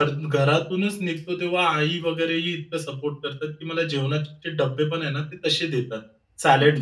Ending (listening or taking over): listening